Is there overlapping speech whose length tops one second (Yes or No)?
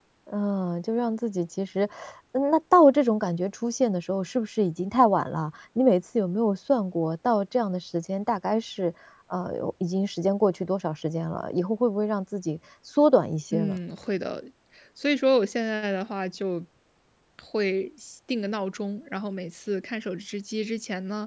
No